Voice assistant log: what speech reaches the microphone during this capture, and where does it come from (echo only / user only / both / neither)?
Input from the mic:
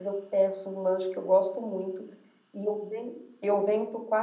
user only